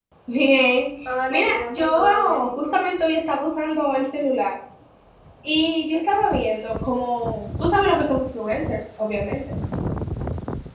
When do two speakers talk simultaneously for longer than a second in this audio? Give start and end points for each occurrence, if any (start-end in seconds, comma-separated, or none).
1.3-2.8